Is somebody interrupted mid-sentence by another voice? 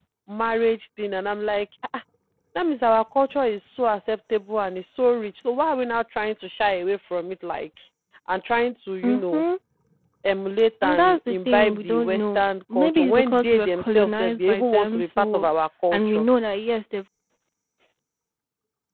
Yes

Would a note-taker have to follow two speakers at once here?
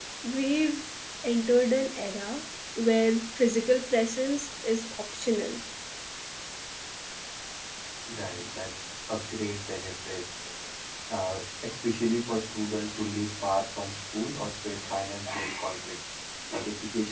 No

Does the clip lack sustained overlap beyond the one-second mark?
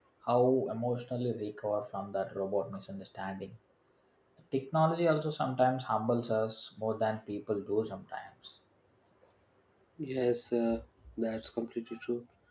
Yes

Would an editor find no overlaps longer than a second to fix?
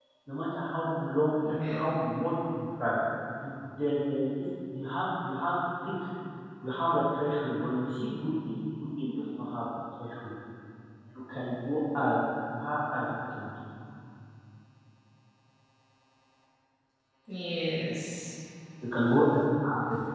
Yes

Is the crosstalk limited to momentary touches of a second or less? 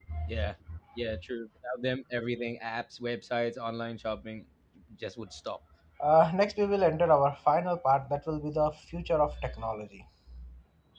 Yes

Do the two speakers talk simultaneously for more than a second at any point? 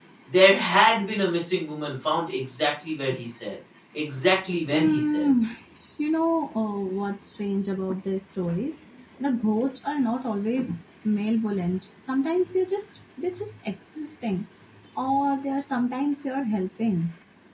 No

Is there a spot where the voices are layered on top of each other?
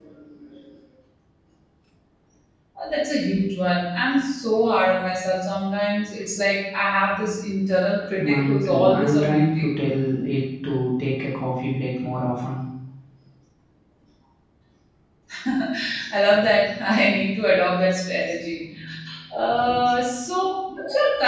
Yes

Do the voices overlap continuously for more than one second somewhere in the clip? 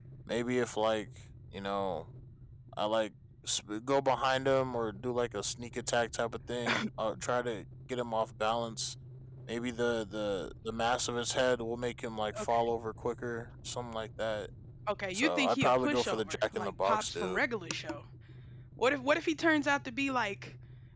Yes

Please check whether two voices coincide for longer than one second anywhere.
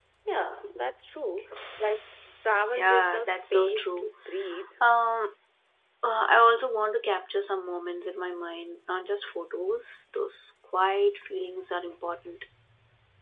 Yes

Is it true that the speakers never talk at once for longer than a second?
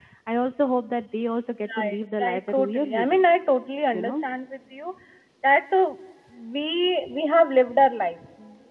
No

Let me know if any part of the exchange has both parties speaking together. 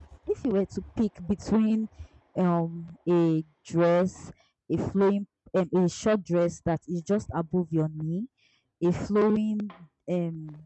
No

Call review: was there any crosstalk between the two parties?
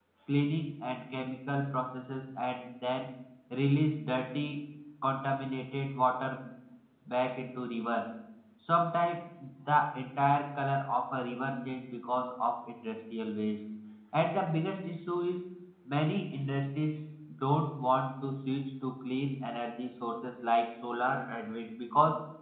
No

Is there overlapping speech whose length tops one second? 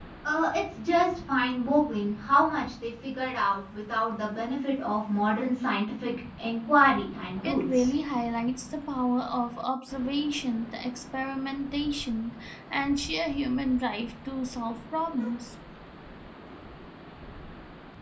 No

